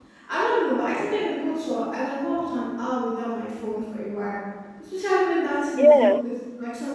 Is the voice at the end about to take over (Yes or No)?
No